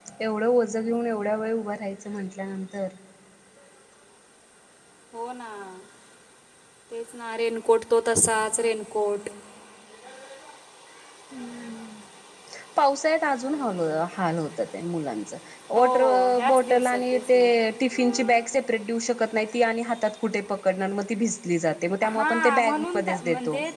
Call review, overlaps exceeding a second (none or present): present